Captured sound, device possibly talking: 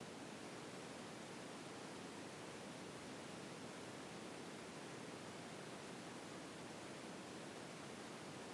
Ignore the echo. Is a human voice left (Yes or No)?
No